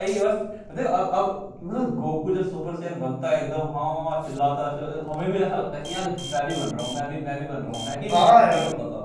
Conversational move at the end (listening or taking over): taking over